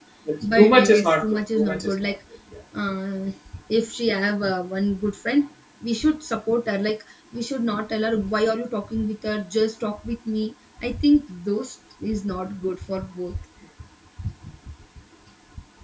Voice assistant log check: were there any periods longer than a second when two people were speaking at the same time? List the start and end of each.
0.6-2.2

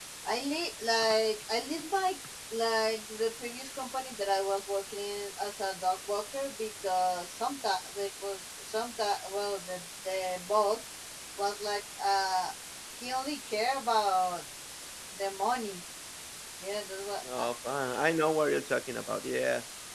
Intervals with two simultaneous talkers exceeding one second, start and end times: none

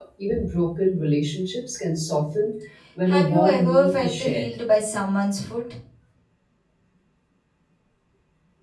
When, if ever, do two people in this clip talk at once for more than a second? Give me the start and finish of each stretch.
3.1-4.5

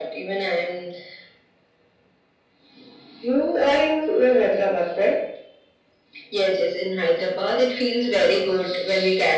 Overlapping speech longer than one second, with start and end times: none

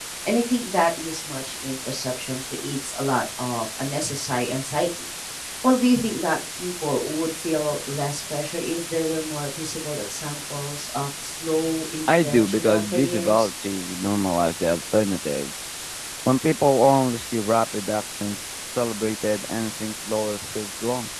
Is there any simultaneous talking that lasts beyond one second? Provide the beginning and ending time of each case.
12.2-13.5

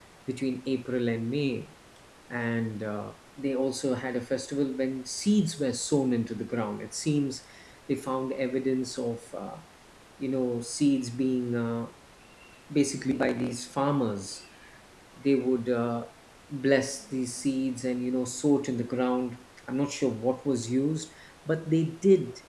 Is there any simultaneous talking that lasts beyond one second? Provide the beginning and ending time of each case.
none

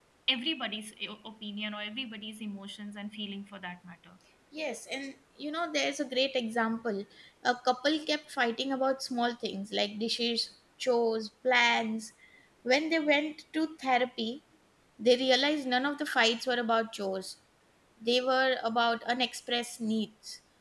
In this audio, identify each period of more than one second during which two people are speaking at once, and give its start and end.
none

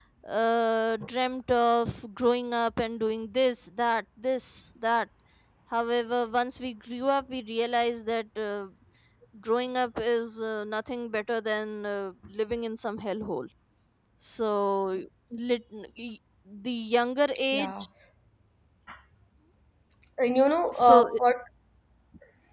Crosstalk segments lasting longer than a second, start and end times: none

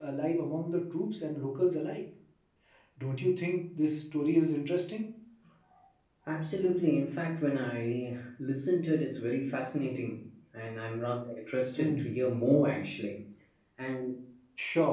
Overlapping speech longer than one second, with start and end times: none

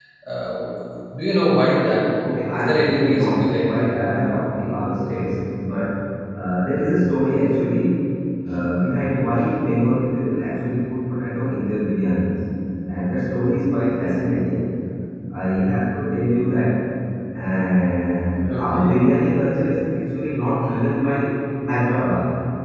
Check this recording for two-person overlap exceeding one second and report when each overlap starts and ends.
2.5-3.9

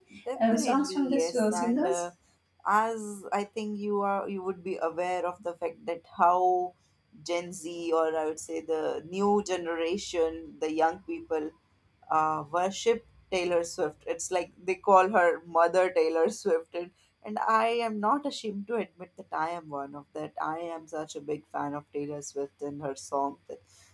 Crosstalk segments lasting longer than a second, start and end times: 0.5-2.0

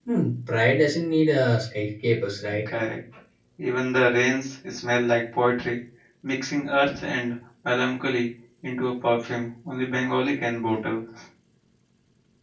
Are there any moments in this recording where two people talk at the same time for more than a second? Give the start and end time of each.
none

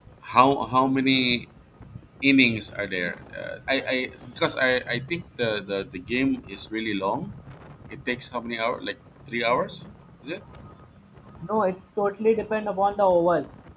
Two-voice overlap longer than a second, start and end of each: none

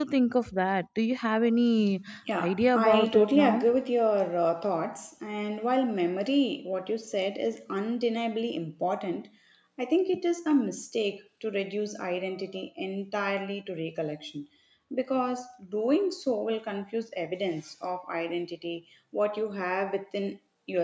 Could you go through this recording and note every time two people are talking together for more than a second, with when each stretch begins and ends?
2.4-3.6

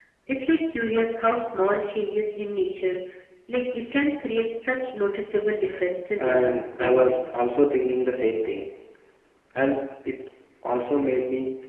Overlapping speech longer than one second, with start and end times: 6.2-7.4

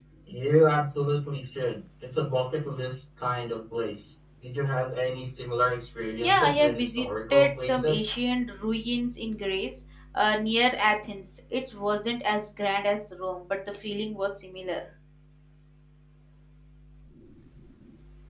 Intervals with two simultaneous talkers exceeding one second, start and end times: 6.2-8.1

